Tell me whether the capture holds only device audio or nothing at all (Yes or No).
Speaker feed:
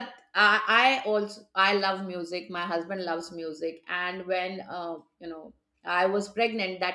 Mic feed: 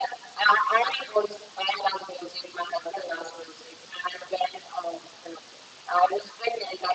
Yes